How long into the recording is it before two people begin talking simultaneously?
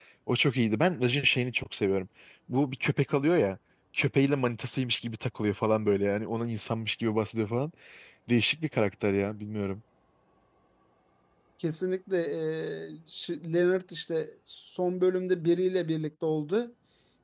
none

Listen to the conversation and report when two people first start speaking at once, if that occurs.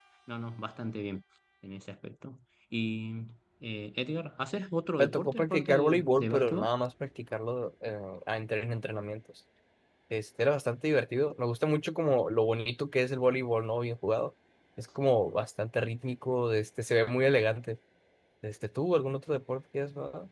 5.0 s

